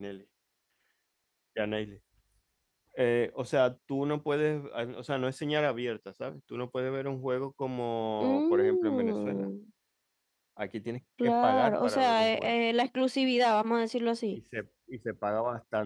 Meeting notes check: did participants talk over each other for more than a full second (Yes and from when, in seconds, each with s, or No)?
Yes, from 8.2 s